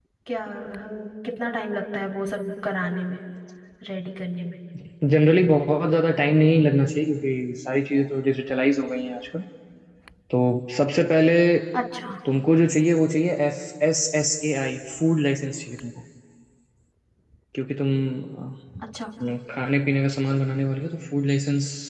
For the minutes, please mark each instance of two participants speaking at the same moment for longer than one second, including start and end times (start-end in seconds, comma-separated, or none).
none